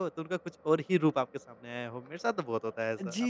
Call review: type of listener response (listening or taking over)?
taking over